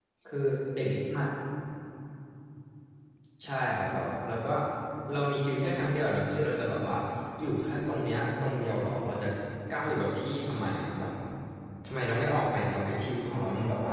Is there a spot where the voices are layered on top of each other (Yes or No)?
No